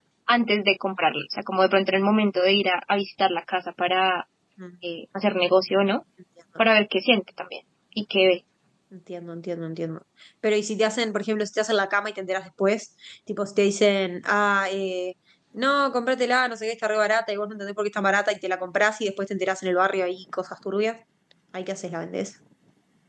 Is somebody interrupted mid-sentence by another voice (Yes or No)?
No